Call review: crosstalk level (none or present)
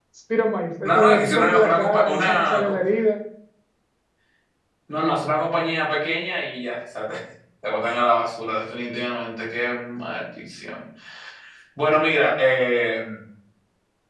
present